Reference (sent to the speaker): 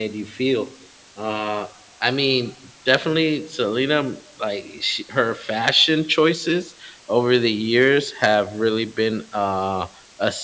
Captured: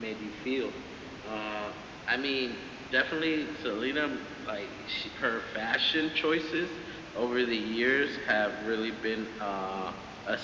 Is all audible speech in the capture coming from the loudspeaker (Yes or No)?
Yes